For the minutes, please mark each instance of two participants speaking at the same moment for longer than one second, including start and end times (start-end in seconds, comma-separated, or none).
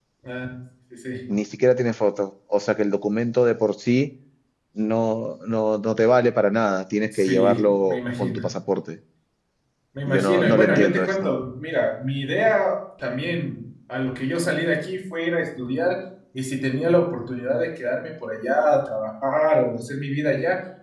7.1-8.4, 10.1-11.3